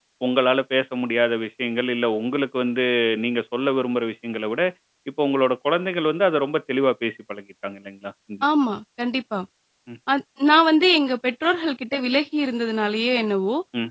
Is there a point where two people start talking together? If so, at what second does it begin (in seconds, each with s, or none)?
none